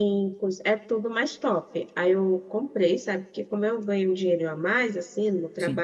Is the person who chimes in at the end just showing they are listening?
Yes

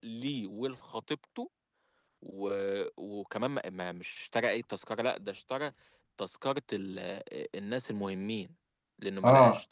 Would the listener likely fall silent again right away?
No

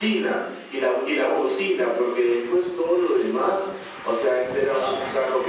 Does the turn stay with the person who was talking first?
Yes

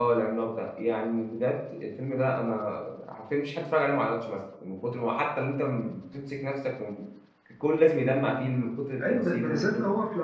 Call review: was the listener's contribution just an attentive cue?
No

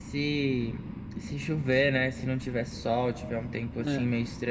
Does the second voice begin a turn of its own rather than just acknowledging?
No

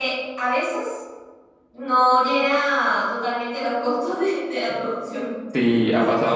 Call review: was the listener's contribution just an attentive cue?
No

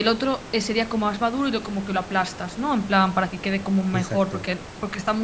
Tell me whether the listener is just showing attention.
Yes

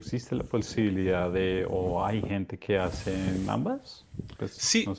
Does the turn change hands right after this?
Yes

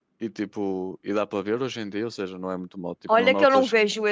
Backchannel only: No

